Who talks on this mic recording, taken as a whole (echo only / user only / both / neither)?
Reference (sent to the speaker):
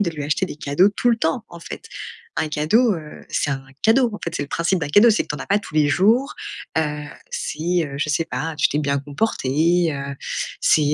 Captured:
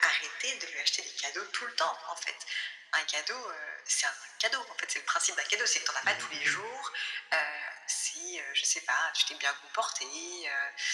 both